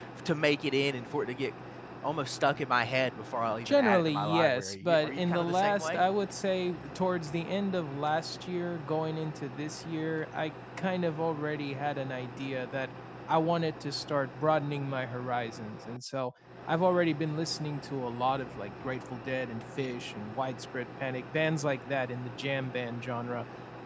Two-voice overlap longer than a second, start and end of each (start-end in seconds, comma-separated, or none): 3.6-6.0